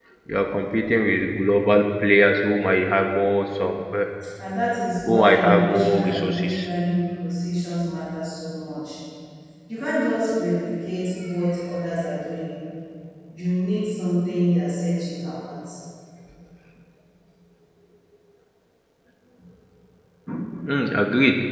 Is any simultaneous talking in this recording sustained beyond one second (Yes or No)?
Yes